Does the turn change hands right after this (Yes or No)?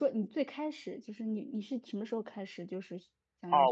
Yes